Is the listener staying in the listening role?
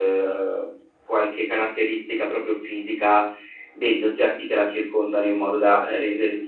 Yes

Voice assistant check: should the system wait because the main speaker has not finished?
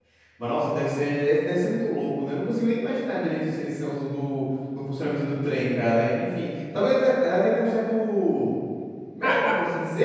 No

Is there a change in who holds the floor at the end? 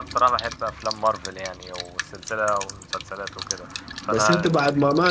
Yes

